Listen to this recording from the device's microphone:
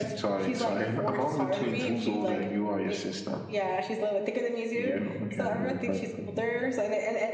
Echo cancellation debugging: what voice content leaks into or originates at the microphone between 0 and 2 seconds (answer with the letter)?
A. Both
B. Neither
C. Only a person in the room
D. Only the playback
D